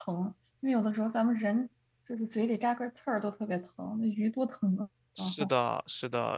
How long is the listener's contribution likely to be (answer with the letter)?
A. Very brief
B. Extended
B